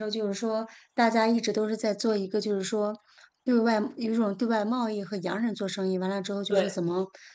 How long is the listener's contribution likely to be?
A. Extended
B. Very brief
B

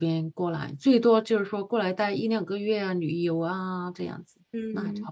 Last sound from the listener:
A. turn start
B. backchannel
A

